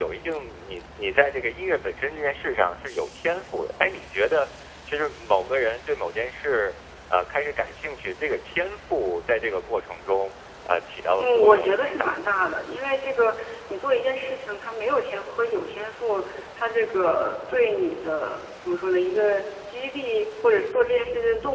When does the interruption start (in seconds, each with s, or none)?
11.2 s